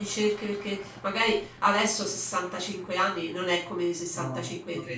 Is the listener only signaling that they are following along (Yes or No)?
Yes